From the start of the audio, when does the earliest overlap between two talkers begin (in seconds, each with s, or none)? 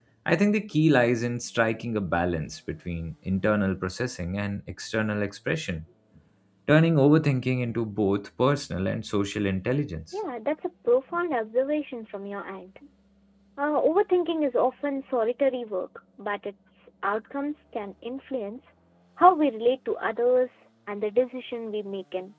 none